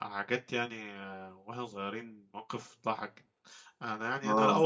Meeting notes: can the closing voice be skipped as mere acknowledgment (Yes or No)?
Yes